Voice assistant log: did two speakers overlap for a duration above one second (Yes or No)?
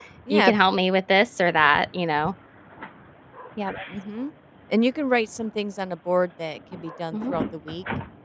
No